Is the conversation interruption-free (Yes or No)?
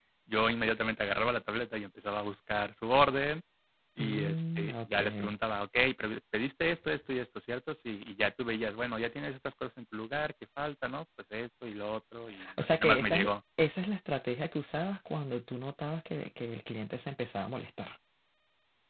No